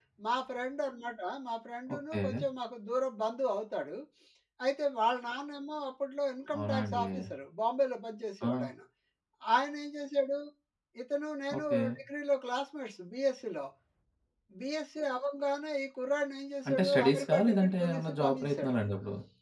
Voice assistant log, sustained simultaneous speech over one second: present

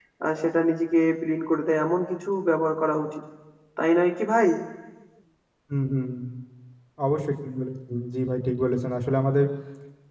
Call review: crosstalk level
none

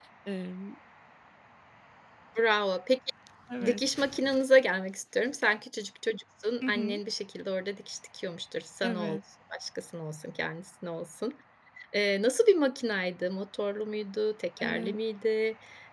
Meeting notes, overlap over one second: none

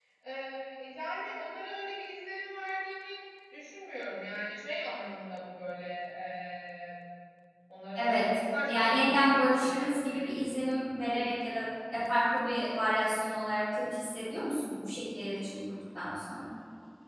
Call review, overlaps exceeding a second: present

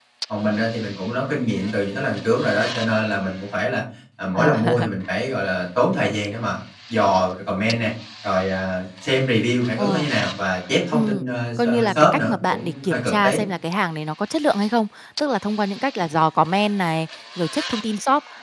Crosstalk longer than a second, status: present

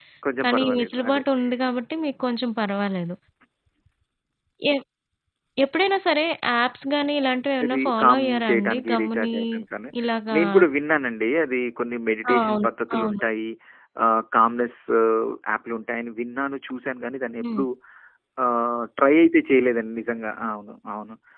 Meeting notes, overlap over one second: present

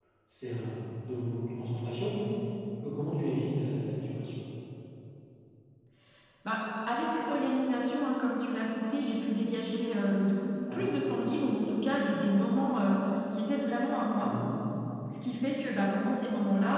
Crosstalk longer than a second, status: none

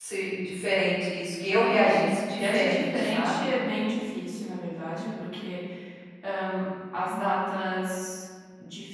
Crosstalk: present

